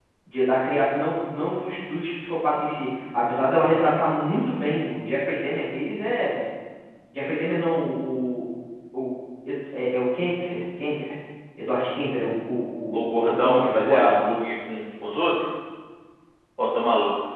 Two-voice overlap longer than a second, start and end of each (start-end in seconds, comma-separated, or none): 12.9-14.2